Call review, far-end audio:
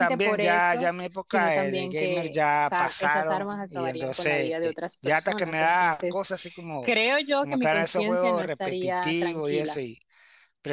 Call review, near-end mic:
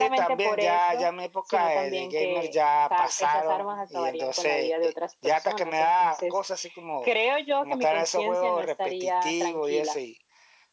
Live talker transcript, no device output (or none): none